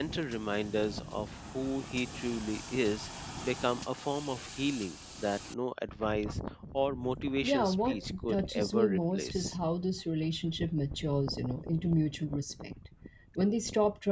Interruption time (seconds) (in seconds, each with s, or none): 7.4 s